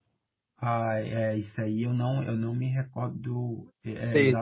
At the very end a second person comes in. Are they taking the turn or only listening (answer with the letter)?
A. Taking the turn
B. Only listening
B